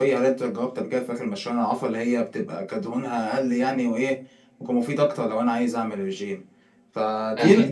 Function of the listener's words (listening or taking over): taking over